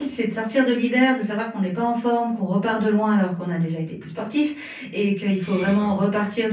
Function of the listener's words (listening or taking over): listening